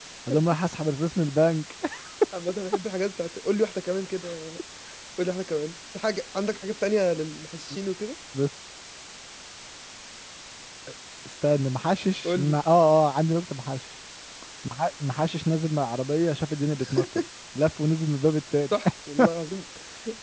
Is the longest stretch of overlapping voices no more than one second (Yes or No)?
Yes